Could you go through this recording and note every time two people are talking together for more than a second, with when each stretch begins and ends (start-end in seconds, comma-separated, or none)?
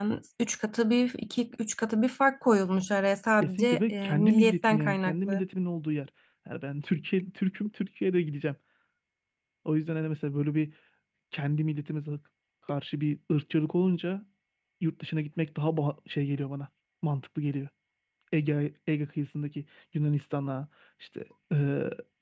3.4-5.4